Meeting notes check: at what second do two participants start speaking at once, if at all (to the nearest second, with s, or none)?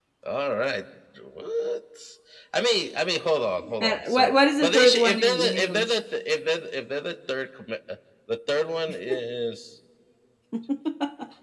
4 s